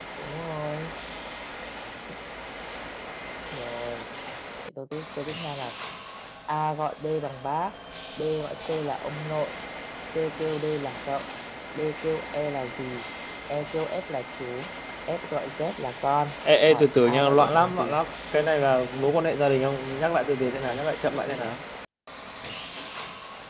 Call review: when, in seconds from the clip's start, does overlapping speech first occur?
16.7 s

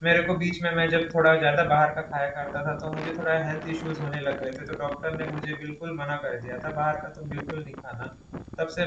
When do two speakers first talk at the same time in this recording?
none

